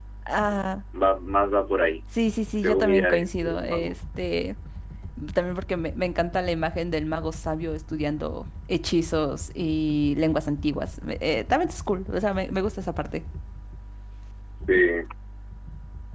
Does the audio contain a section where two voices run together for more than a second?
Yes, from 2.6 s

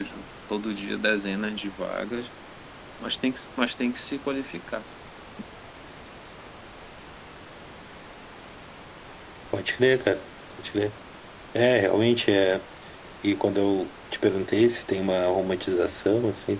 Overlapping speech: No

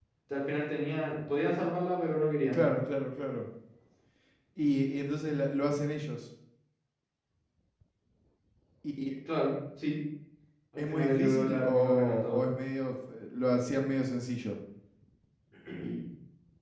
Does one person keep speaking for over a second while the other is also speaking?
Yes, from 10.8 s

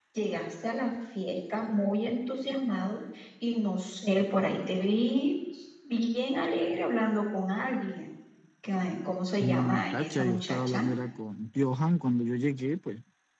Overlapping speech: Yes, from 9.4 s

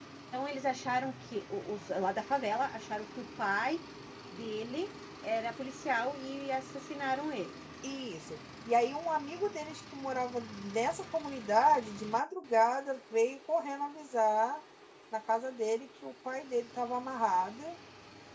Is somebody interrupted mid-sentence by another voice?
No

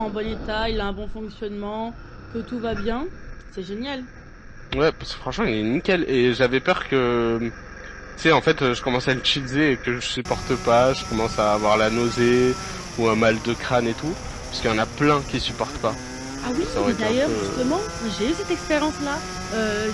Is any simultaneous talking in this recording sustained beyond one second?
Yes, from 16.6 s

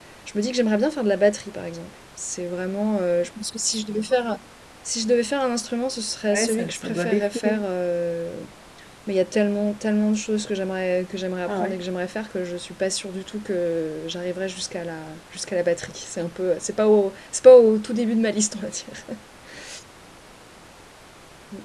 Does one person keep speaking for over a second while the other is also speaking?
Yes, from 6.3 s

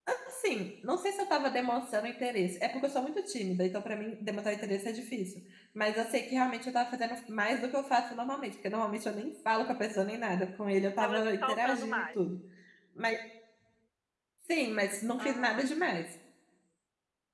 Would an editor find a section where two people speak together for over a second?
Yes, from 11.0 s

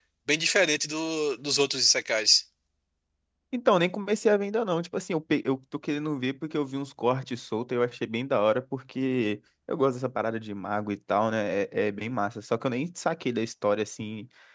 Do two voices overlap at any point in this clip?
No

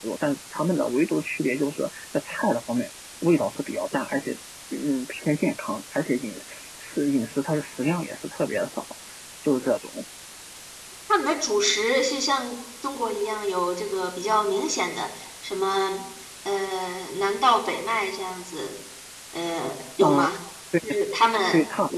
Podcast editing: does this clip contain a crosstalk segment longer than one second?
No

